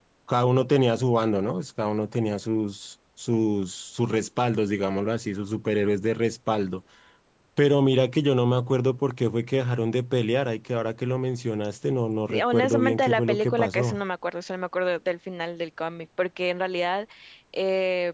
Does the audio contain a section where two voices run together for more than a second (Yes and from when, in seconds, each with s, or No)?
Yes, from 12.3 s